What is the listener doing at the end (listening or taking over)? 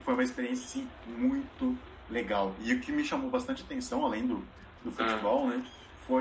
listening